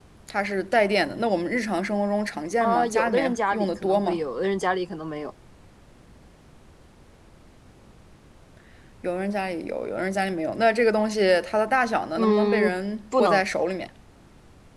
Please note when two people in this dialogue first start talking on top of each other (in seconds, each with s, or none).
2.6 s